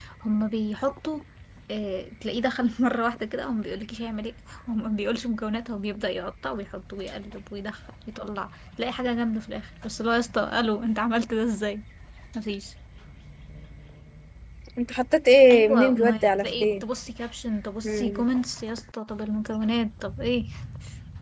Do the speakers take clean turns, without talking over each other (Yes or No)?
No